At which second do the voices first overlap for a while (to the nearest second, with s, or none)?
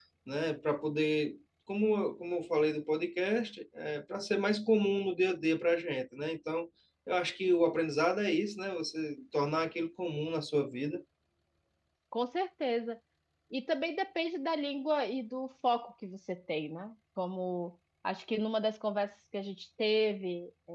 none